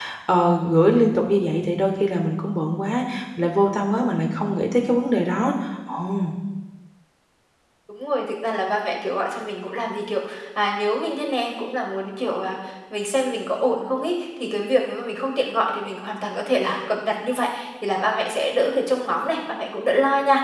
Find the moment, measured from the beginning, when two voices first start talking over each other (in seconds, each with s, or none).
none